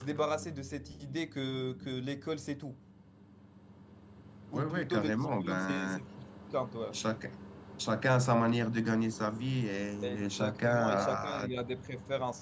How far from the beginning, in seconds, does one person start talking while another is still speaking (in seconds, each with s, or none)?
4.5 s